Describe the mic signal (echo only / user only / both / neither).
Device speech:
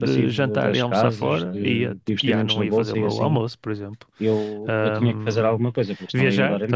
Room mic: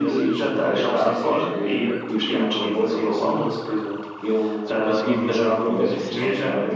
both